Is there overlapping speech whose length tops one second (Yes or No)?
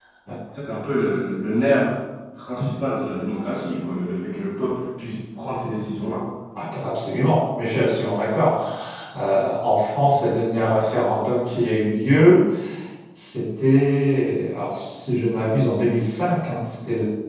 No